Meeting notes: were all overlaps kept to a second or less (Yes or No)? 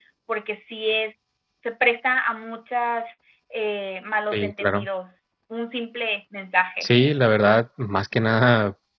Yes